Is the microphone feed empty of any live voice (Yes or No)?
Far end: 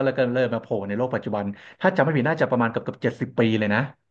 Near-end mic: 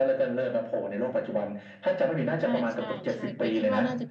No